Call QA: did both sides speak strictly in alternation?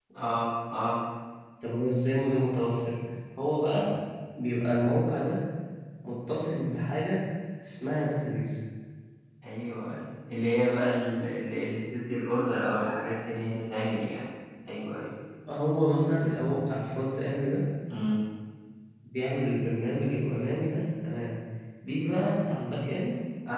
Yes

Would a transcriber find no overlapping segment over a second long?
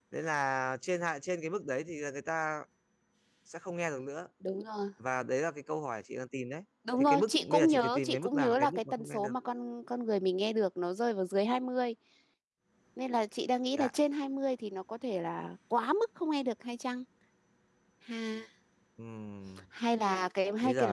No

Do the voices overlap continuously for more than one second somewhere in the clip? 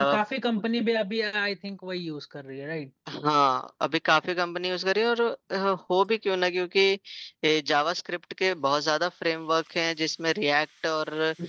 No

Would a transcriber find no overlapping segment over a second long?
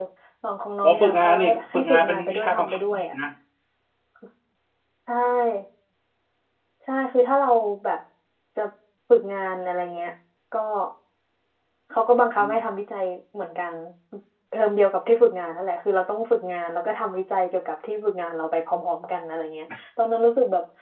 No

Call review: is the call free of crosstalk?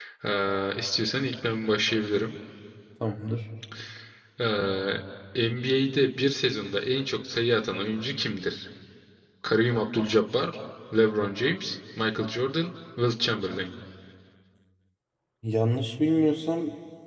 Yes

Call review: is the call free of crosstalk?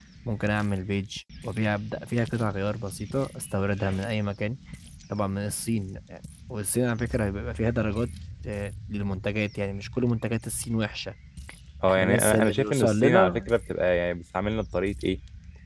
No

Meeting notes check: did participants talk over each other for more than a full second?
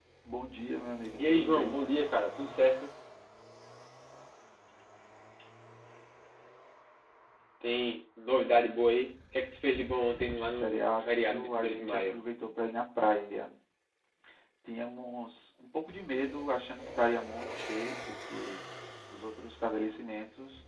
Yes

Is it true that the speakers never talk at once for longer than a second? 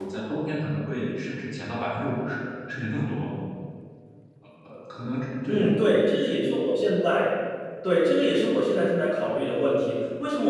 Yes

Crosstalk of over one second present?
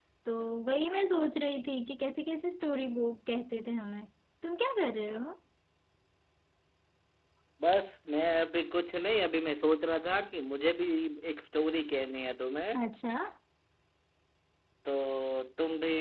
No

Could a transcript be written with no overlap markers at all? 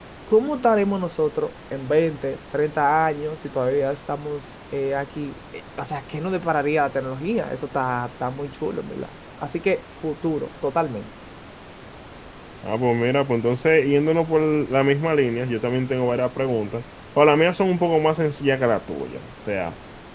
Yes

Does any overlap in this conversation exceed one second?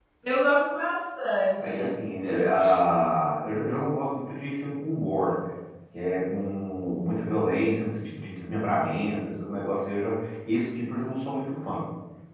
No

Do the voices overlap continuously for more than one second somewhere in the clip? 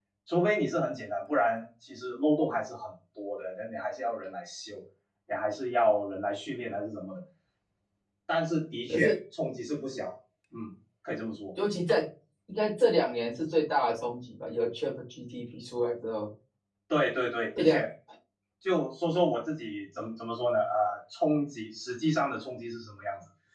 No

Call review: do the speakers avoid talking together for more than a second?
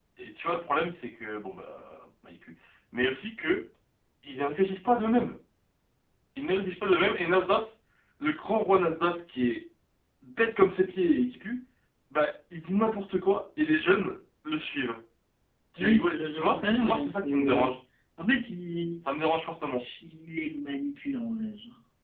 No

